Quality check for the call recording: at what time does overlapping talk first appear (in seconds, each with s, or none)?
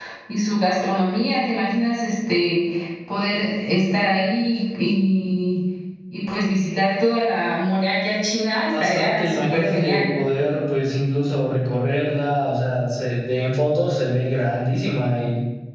8.7 s